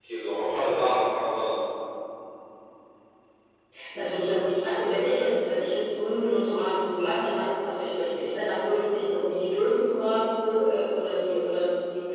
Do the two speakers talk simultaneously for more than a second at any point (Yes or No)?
No